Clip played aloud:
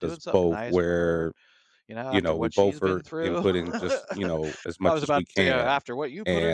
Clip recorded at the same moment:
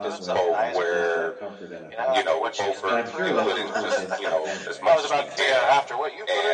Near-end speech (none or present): present